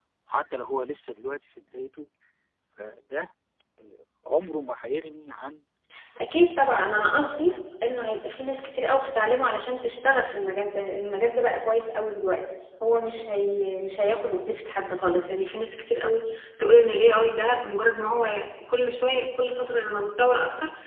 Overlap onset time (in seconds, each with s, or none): 6.3 s